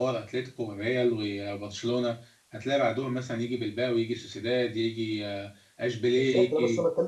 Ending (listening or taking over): taking over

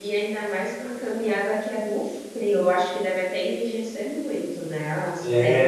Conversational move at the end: taking over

